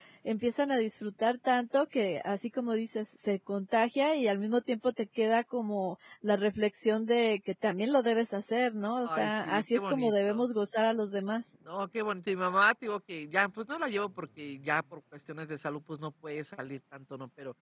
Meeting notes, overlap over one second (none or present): present